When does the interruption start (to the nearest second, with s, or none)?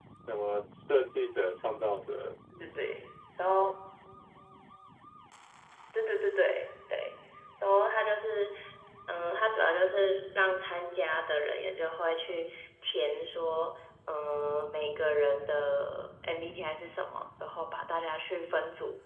none